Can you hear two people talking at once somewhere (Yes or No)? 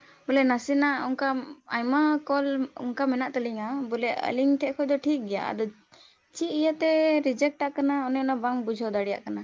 No